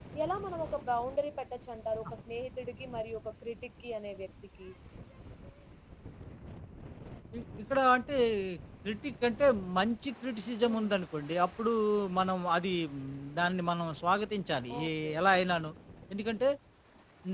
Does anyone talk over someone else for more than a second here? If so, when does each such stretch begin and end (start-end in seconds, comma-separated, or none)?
none